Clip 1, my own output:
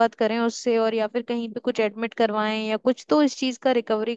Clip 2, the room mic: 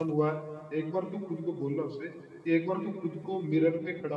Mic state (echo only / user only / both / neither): user only